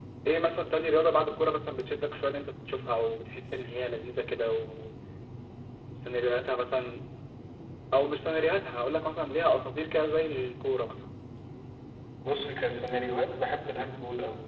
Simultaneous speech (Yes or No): No